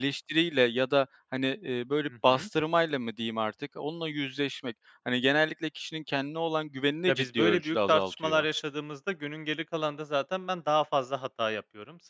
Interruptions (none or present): present